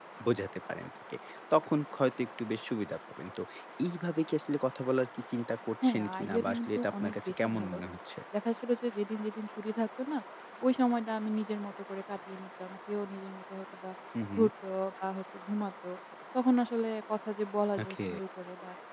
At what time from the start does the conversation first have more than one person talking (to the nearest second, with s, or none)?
6 s